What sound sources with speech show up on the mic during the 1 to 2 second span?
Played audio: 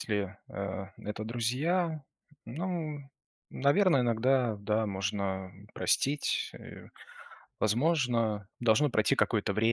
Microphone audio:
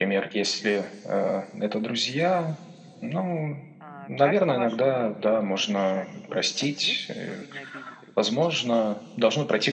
echo only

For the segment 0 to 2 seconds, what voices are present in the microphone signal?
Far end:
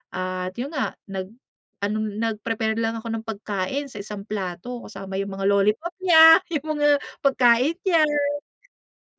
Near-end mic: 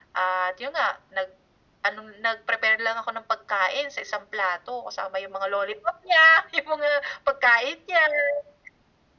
echo only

